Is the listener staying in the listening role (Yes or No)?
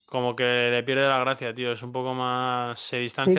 No